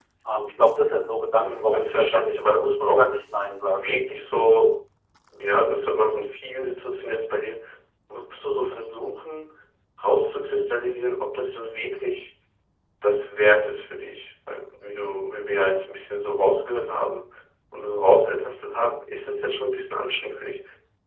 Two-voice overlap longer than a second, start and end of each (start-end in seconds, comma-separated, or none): 1.4-3.0